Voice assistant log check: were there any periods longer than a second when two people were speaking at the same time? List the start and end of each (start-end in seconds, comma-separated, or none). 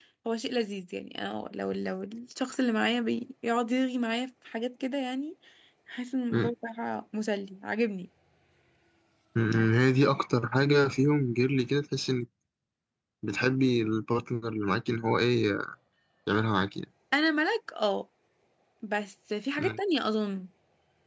none